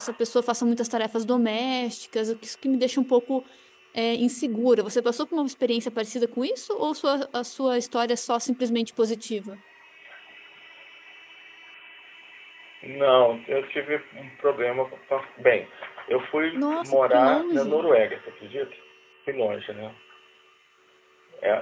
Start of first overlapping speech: 16.5 s

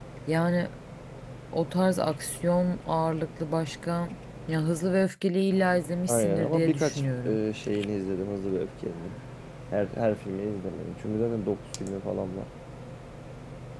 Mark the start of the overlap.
6.1 s

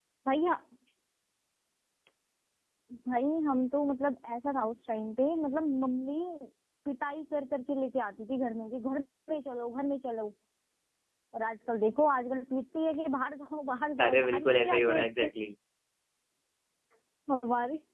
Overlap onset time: 14.0 s

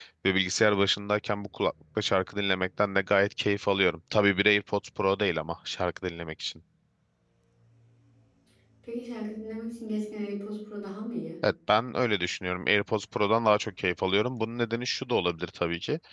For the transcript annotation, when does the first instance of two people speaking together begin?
none

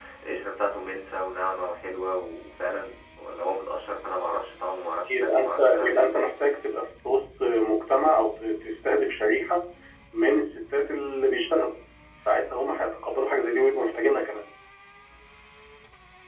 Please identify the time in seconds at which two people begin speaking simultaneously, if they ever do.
5.1 s

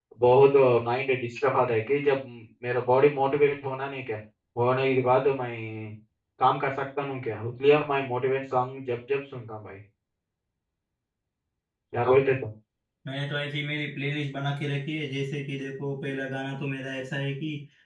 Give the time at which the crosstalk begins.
none

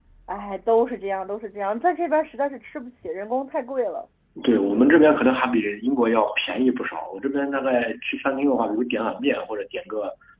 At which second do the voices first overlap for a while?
none

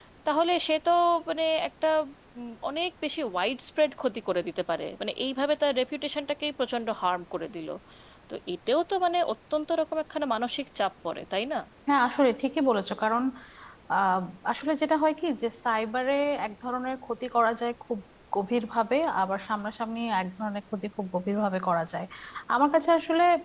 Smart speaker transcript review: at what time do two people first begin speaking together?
none

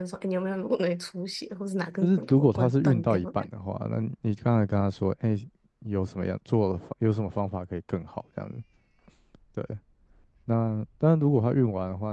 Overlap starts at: 2.0 s

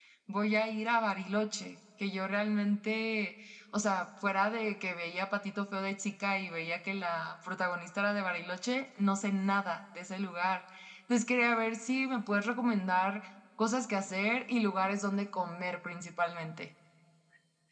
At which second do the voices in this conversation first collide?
none

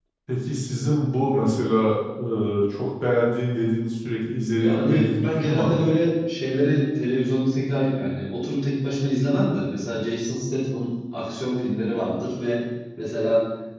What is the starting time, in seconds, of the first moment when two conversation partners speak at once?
4.6 s

